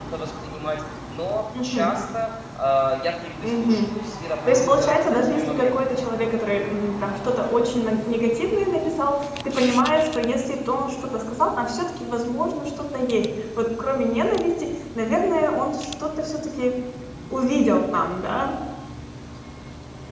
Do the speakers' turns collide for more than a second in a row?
Yes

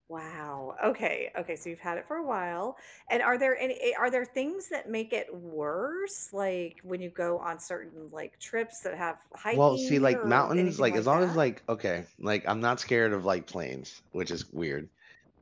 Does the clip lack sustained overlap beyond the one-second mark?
No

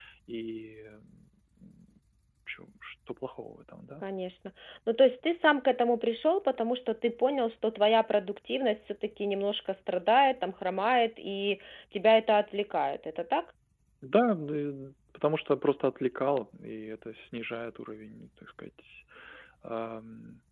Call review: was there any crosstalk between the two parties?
No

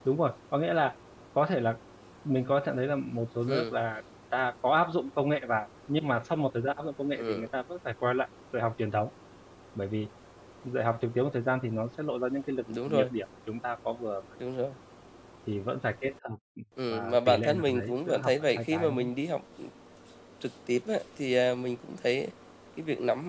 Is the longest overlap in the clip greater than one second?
Yes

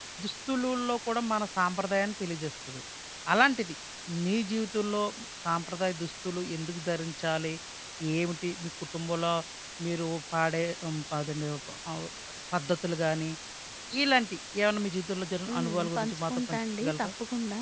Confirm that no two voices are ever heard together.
No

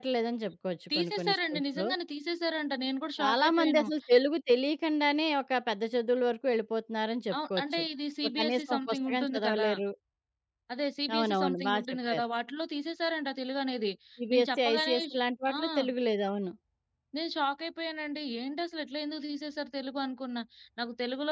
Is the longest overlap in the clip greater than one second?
Yes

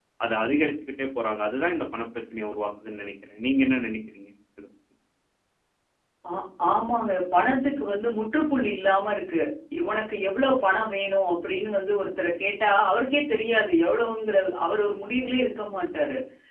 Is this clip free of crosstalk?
Yes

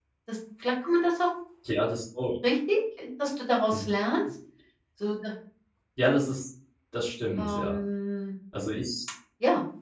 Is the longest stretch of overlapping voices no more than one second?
Yes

